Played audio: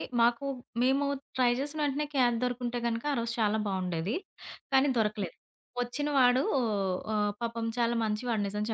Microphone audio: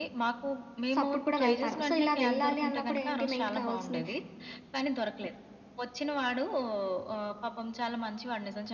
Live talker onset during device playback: 0.9 s

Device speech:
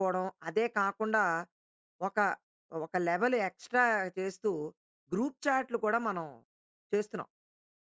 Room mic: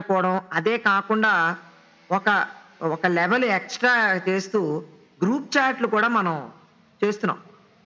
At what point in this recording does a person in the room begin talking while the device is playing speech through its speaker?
none

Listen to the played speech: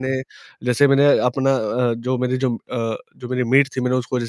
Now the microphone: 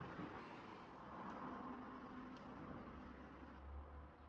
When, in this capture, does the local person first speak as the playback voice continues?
none

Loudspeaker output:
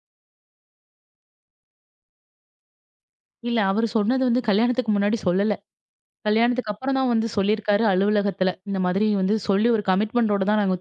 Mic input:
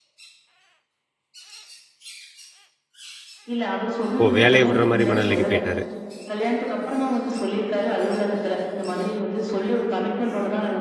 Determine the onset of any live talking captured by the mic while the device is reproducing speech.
4.2 s

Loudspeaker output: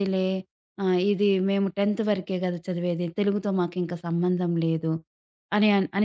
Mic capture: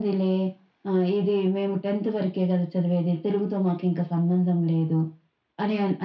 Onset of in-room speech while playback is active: none

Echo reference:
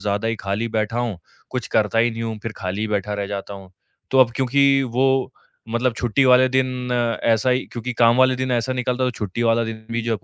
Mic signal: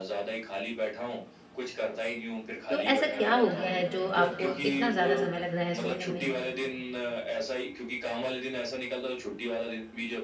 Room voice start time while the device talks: 2.7 s

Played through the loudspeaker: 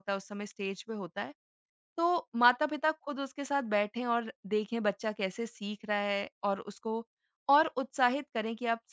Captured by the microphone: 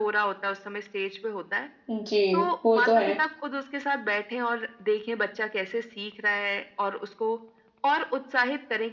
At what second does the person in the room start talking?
1.9 s

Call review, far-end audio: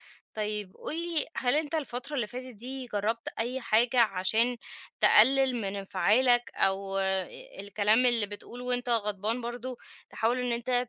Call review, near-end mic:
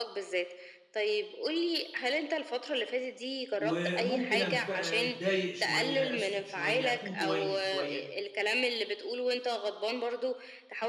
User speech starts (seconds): 3.6 s

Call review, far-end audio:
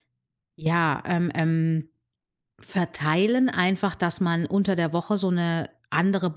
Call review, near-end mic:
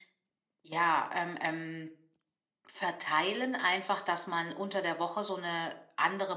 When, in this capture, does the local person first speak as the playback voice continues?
none

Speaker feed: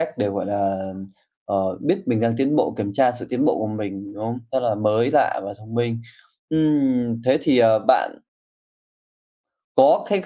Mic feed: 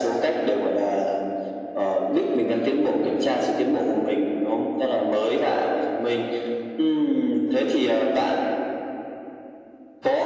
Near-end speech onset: none

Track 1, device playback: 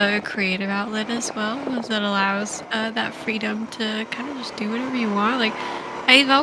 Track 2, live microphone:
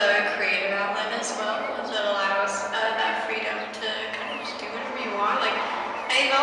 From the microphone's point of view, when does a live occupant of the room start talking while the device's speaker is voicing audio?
none

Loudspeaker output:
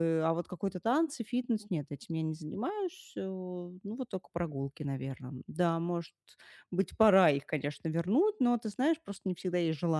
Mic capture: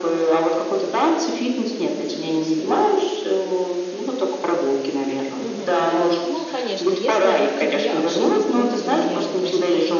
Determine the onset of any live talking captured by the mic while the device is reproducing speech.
5.4 s

